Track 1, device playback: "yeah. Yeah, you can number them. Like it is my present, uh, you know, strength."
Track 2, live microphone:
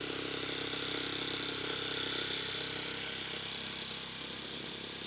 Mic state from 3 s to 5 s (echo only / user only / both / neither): neither